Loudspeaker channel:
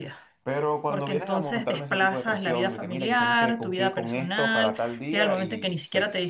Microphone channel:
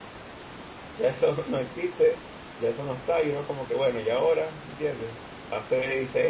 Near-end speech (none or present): present